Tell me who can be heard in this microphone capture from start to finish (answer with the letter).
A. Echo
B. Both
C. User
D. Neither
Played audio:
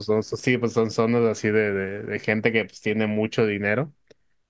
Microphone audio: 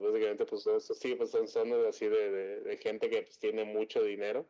A